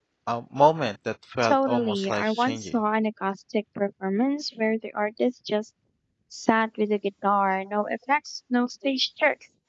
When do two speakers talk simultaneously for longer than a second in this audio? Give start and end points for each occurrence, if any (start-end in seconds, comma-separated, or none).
1.4-2.8